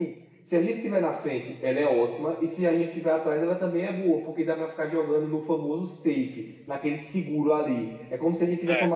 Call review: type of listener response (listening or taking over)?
listening